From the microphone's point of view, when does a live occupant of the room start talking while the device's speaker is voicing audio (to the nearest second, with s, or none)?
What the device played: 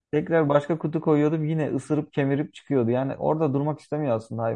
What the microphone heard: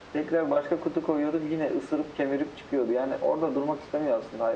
none